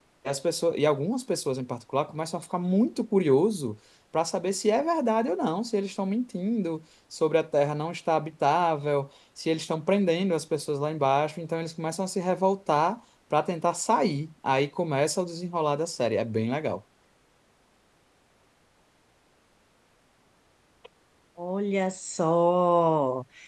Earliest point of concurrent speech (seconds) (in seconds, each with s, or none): none